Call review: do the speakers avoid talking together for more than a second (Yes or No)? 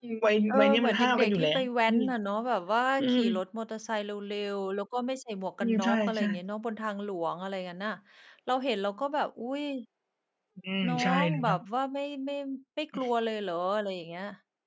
No